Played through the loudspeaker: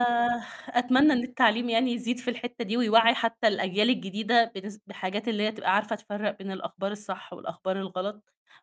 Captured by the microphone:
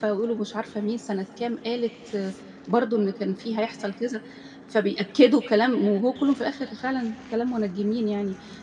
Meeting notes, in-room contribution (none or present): present